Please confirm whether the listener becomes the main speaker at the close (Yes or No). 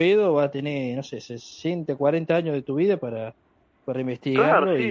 Yes